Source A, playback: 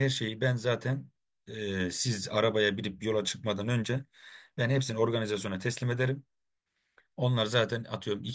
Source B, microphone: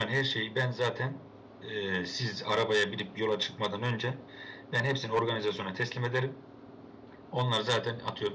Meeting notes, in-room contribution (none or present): none